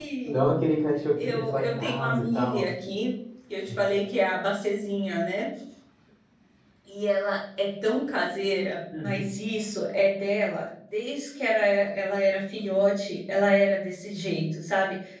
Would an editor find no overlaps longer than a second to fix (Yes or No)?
No